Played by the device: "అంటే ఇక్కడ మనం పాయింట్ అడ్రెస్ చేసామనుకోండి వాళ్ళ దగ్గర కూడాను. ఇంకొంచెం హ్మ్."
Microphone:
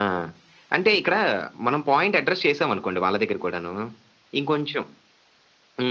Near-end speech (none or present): none